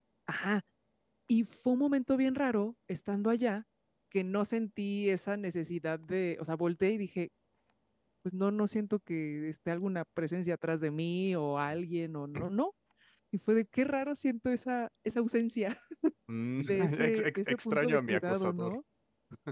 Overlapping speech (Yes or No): Yes